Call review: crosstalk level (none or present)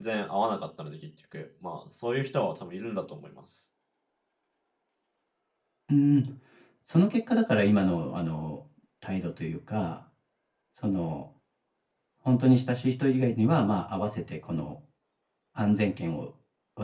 none